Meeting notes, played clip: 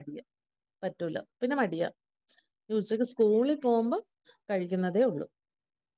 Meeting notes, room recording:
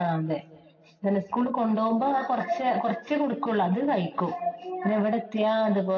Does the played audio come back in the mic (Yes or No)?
No